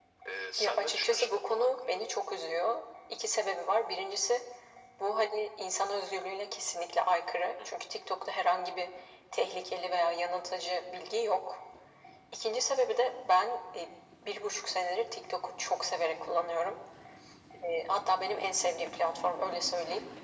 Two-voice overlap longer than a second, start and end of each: 0.6-2.0

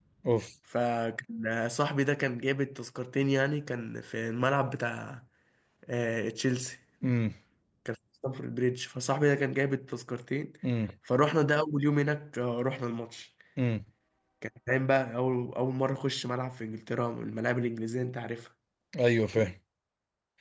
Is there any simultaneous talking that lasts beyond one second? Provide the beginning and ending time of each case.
none

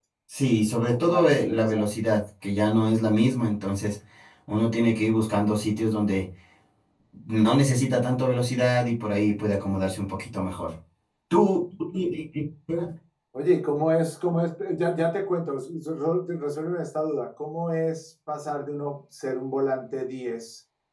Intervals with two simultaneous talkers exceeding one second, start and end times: 0.6-1.9

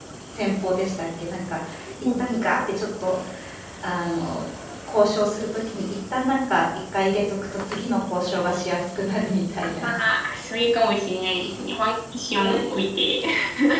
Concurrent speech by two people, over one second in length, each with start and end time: none

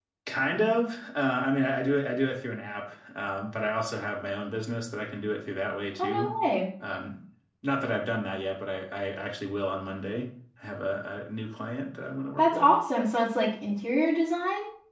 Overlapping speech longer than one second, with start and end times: none

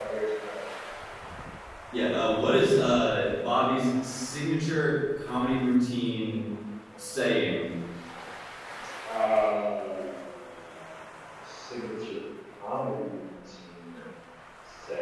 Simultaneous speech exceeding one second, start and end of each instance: none

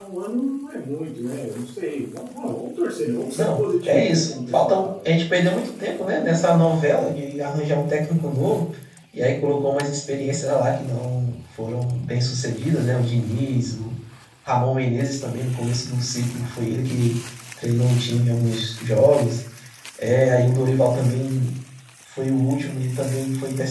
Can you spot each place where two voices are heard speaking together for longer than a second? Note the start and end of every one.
3.4-4.9

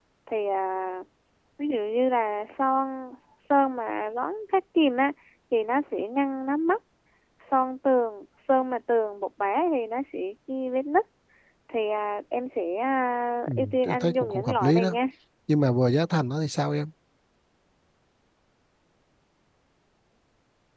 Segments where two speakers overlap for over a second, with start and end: 13.5-15.0

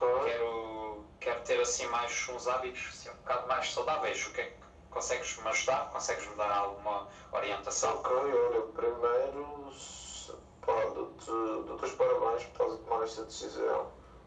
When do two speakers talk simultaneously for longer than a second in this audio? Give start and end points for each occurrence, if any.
none

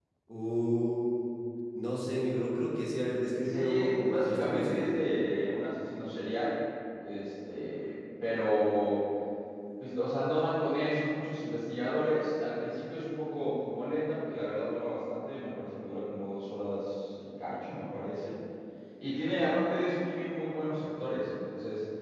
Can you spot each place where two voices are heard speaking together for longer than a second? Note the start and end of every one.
3.4-5.0

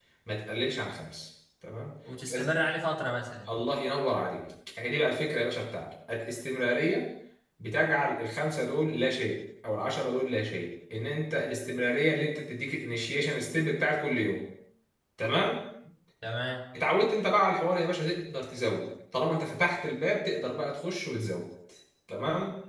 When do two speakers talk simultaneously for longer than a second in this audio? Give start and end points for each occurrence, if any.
none

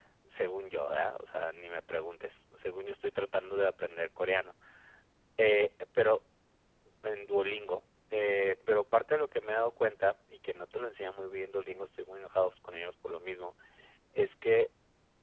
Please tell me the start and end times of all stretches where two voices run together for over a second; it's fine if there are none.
none

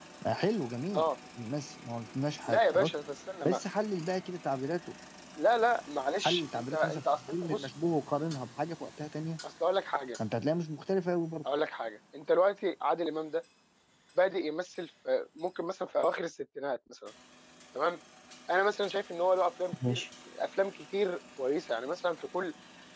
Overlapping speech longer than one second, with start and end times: 6.2-7.7

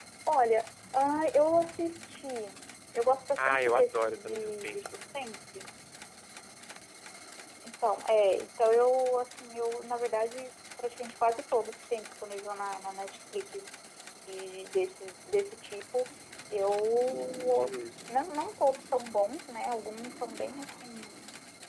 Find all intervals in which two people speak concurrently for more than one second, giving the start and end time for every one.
3.4-4.8

